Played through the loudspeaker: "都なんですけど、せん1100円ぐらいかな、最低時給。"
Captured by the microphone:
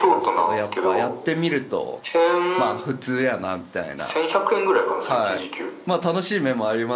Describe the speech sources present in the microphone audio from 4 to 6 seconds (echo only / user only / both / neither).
both